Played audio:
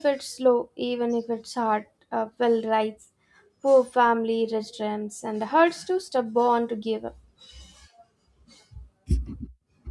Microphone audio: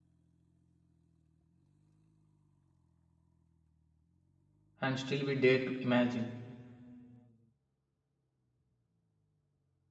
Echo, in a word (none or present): none